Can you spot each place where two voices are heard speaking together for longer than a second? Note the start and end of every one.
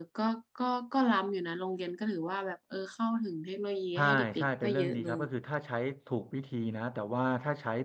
4.0-5.2

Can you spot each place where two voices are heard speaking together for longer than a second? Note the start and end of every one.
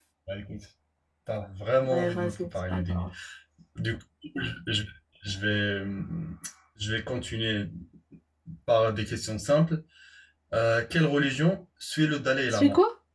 1.8-3.0

